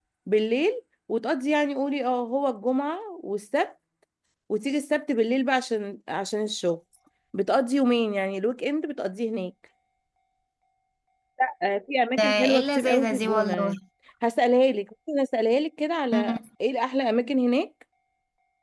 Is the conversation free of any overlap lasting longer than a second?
No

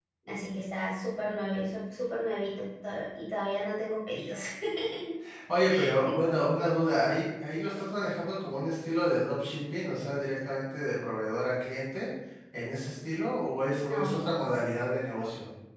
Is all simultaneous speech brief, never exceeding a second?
Yes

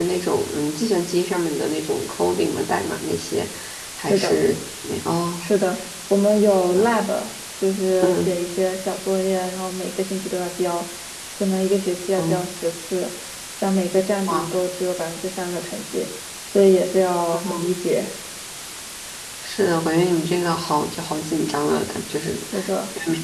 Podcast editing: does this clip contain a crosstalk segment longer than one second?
No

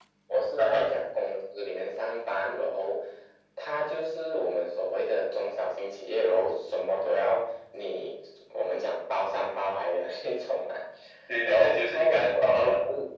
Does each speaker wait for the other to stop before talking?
No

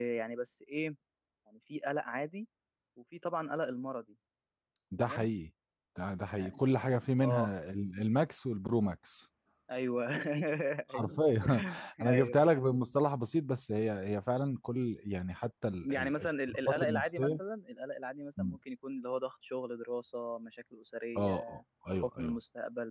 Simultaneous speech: Yes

